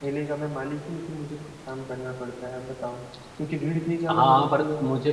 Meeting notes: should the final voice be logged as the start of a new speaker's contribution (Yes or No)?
Yes